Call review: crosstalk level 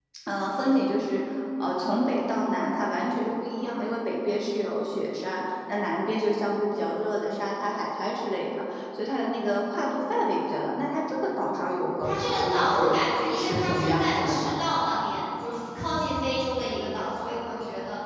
present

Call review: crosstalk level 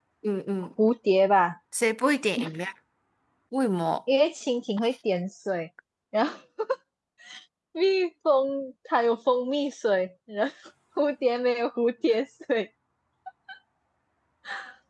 none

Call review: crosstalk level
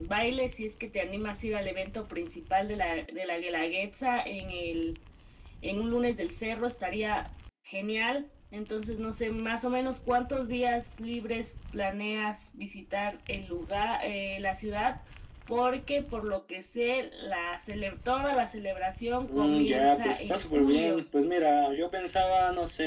present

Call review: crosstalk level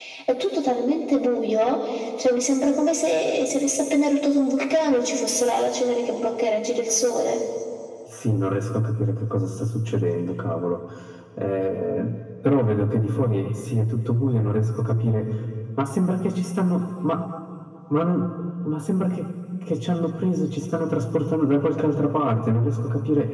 none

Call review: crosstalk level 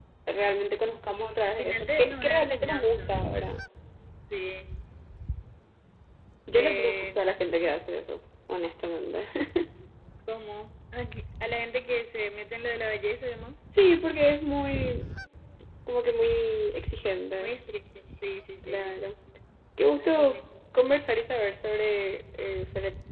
present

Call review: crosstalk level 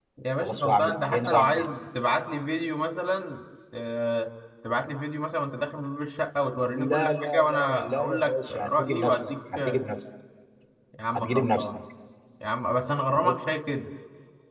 present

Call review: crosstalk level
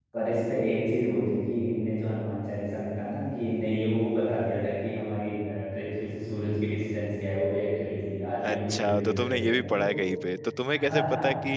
present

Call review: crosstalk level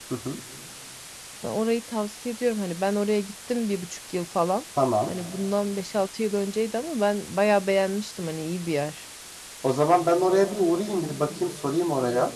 none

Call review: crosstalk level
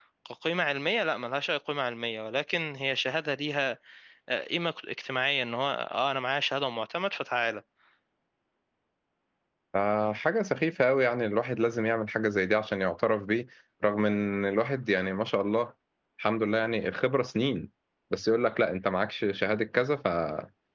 none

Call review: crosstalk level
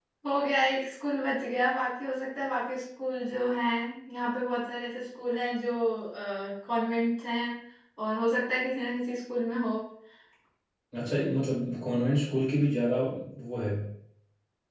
none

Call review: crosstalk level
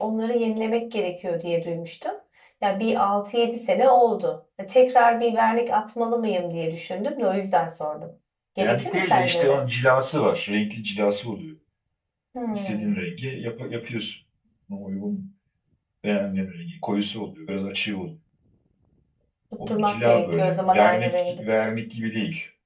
present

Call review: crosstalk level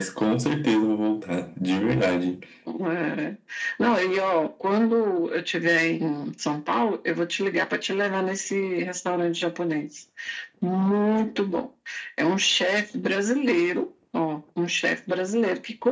none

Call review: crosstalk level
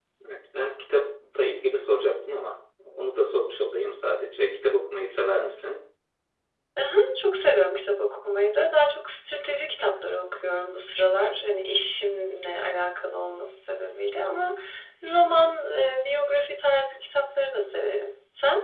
none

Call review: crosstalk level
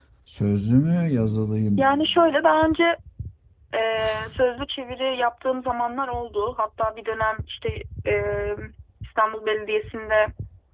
none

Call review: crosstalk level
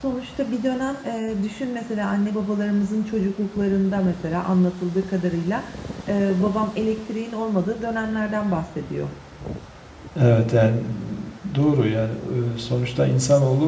none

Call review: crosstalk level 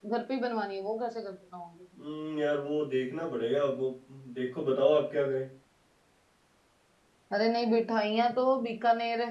none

